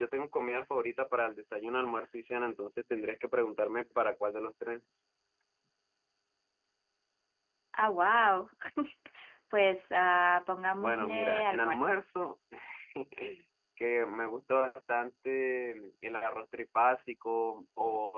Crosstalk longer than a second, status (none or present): present